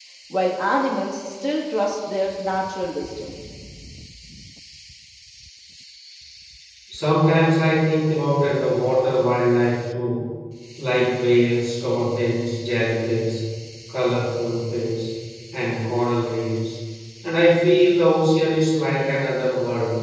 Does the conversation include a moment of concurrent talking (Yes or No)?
No